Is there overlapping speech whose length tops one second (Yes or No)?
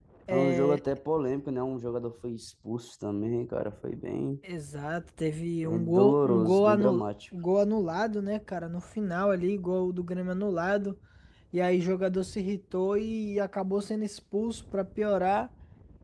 Yes